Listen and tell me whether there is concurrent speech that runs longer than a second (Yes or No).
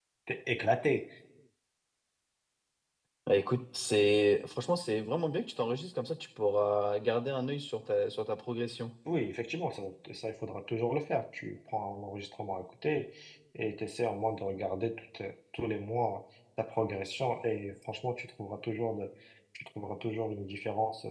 No